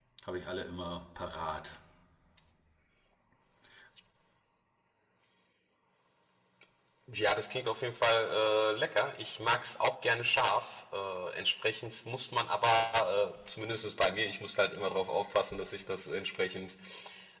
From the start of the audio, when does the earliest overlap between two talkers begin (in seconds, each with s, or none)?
none